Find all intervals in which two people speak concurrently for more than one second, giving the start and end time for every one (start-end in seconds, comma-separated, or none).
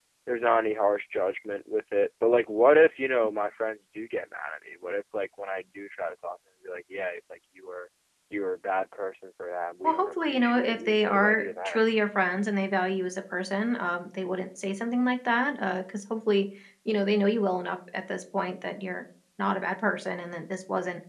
9.8-11.8